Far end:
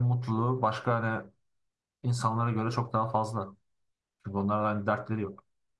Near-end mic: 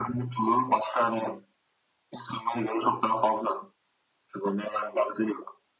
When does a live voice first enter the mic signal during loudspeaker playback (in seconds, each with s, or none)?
none